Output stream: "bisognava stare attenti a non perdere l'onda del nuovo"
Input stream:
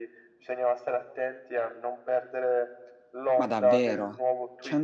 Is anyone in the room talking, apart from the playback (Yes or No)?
Yes